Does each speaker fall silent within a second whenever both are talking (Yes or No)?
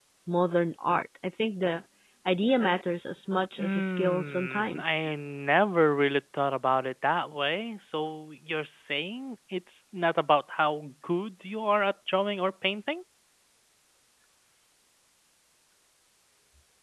No